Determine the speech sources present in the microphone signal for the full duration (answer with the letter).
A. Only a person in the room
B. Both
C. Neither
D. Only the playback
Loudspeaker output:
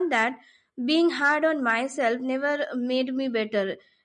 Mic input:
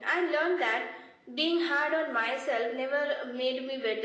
D